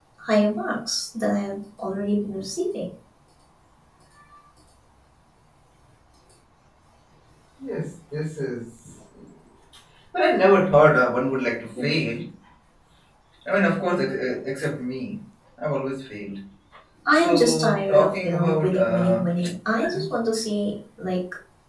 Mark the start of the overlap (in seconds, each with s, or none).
17.1 s